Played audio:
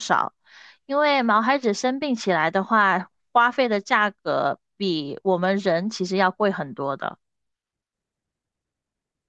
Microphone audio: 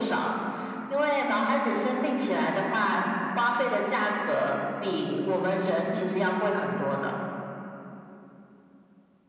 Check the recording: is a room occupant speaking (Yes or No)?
No